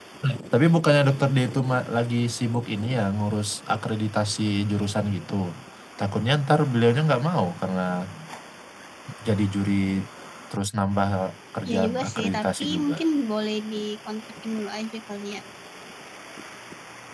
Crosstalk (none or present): present